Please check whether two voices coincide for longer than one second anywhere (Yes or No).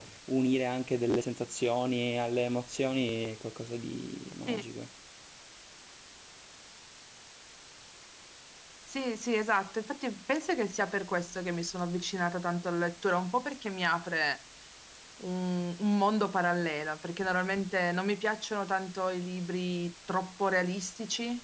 No